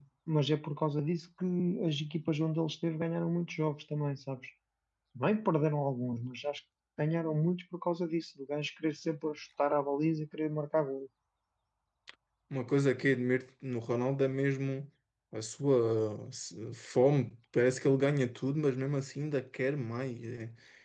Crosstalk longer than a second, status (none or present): none